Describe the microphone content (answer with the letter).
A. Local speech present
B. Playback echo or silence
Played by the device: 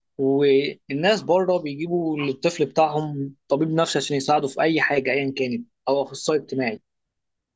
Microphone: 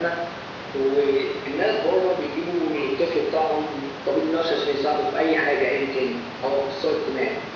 B